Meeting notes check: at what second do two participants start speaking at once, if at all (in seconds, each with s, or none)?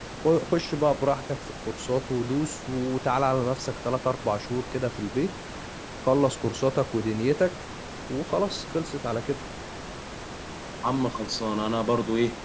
none